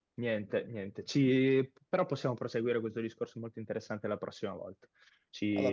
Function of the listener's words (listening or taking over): listening